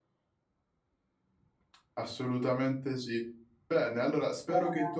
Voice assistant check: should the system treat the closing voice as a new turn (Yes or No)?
No